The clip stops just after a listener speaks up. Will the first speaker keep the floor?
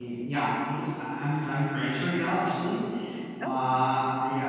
Yes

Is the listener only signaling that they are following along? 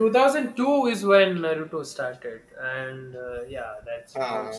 Yes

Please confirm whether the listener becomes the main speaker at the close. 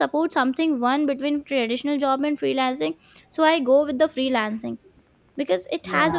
No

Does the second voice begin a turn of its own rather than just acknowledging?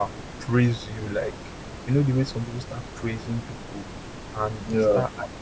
No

